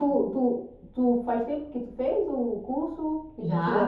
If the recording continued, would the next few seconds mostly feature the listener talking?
Yes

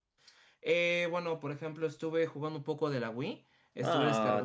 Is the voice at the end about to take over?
Yes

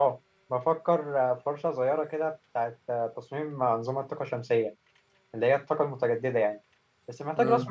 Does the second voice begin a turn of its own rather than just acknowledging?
No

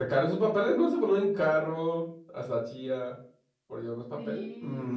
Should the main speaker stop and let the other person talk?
Yes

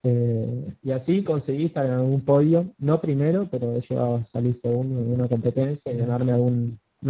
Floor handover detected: No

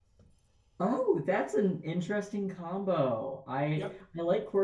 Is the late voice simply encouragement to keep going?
Yes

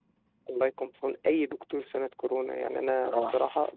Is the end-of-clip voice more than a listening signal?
No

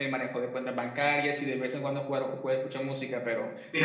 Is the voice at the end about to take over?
Yes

